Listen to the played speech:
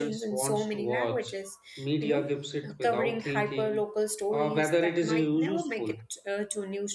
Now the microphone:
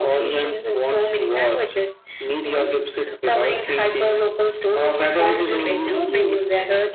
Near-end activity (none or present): present